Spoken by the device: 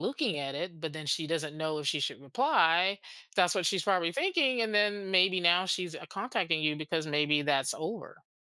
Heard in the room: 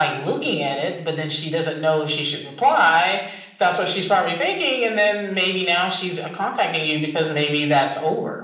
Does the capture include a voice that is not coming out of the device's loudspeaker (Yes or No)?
No